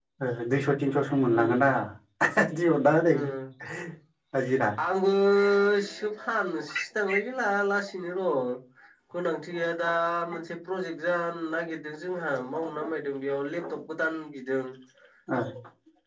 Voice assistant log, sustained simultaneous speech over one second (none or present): none